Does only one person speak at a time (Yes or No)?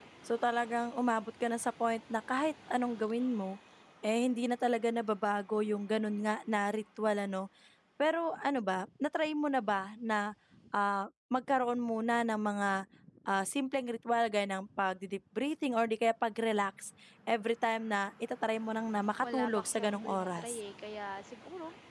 No